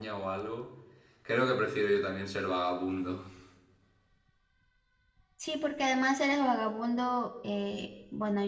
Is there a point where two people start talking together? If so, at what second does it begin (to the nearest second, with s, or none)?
none